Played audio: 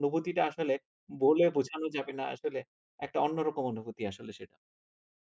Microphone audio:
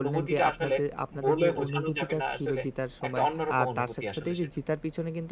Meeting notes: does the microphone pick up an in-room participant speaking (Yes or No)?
Yes